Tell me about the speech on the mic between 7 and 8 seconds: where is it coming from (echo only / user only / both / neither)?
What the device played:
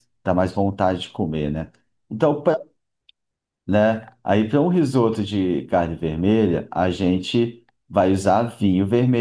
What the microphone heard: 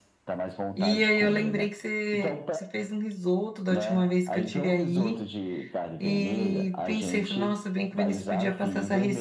both